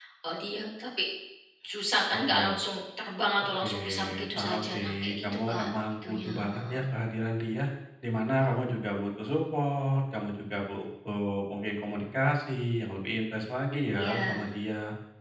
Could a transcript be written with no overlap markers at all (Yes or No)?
No